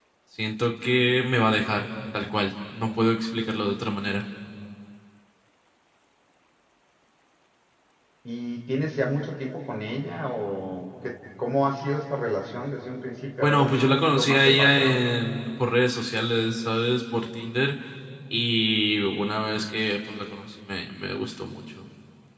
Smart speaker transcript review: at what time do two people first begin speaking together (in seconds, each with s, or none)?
13.4 s